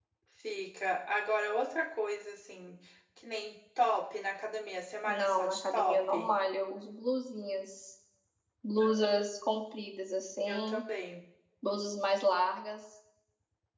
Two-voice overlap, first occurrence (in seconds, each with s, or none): 5.1 s